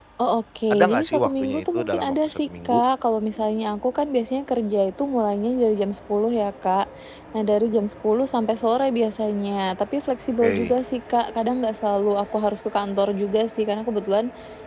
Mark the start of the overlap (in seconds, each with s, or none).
0.7 s